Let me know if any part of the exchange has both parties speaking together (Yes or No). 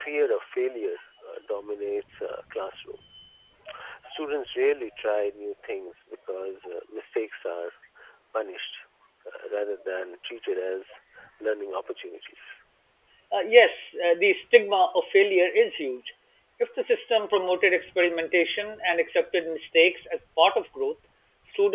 No